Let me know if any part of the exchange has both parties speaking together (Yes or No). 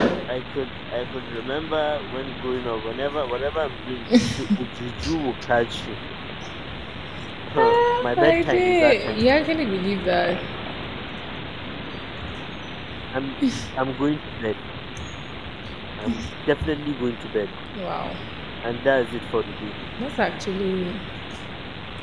Yes